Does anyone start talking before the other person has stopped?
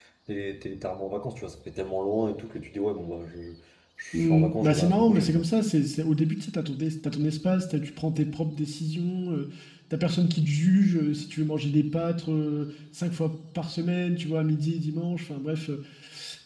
Yes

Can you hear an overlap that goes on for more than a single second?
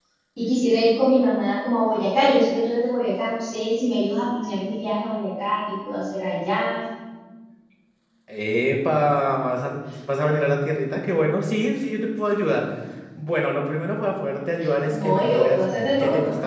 Yes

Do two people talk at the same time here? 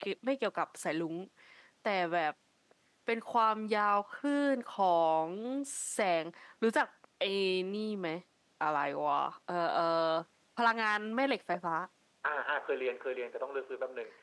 No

